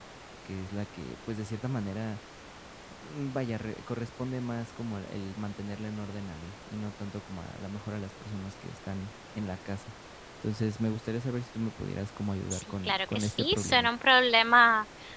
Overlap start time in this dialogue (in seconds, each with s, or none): 12.5 s